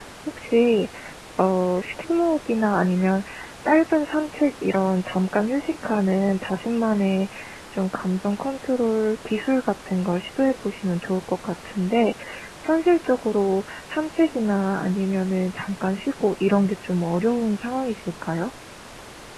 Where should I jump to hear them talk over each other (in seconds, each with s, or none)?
none